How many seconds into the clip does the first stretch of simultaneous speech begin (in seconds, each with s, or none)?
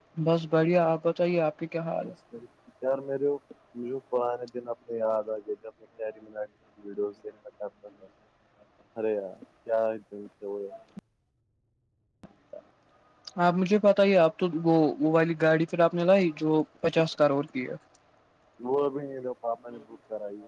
none